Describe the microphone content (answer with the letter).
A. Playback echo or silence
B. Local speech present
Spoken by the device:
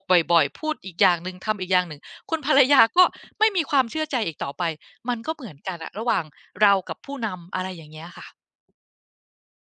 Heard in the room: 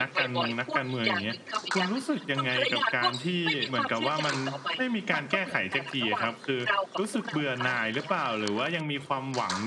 B